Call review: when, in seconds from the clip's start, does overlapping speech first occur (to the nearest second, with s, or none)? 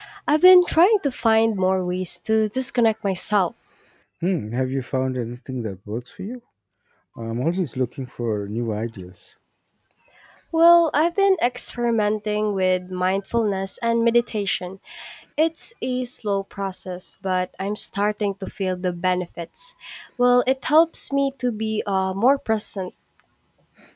none